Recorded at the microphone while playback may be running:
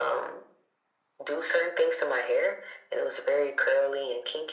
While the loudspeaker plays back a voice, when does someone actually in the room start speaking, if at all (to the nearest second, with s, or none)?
none